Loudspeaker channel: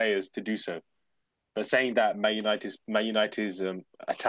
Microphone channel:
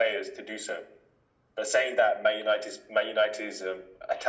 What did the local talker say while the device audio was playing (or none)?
none